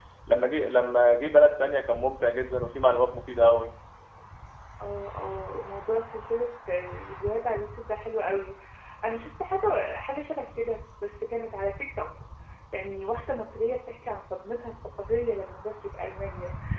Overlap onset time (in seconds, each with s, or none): none